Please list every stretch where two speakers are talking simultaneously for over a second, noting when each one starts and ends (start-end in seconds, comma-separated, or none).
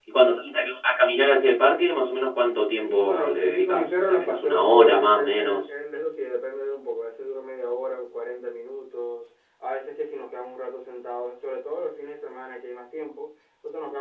2.8-5.7